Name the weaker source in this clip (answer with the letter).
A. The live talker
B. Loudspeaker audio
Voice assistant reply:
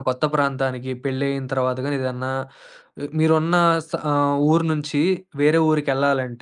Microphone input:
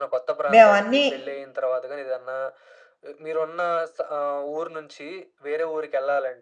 B